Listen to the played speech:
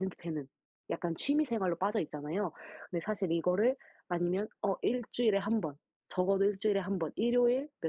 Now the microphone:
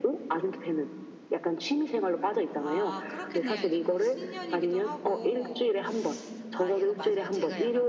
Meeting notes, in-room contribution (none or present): present